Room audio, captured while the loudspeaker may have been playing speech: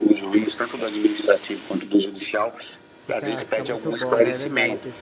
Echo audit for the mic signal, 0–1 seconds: echo only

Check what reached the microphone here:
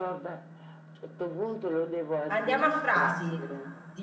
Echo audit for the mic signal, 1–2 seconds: echo only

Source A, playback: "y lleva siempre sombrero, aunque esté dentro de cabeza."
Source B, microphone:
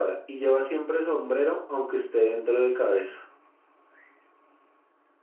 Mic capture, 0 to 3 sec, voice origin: echo only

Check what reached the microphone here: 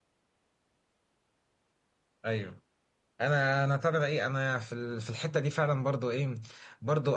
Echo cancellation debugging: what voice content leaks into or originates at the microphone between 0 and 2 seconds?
neither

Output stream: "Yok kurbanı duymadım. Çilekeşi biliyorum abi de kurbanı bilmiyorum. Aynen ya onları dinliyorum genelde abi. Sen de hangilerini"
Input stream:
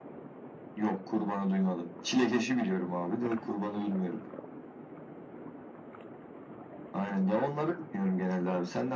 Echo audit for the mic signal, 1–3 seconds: echo only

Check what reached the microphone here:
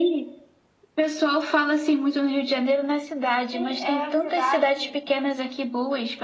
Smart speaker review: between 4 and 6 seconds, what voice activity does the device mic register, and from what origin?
both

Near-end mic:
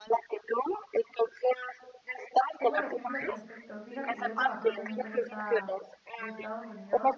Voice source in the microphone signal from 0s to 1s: echo only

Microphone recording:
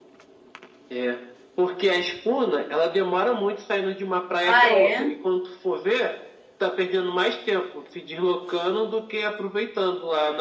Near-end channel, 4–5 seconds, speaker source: both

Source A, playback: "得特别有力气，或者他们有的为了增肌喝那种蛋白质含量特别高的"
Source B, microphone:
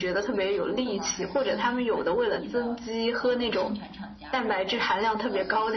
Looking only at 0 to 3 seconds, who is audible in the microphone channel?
both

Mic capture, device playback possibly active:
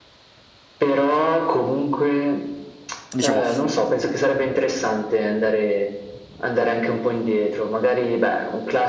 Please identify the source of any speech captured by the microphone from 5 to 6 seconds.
echo only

